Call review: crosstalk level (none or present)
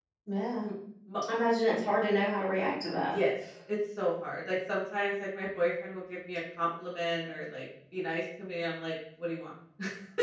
none